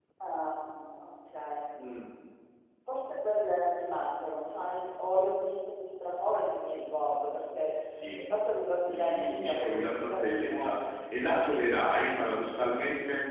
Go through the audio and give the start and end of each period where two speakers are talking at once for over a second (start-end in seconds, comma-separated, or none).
8.9-10.8